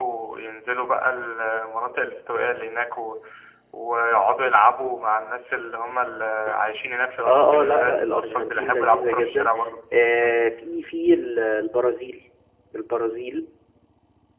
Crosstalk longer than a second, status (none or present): present